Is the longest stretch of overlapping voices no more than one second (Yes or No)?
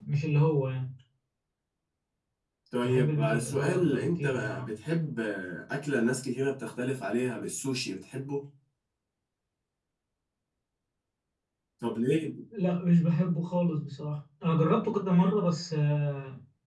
No